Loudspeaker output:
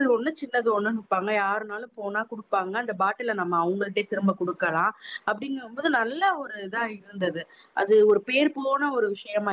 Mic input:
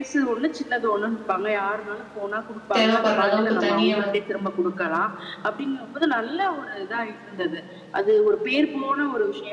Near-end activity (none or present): present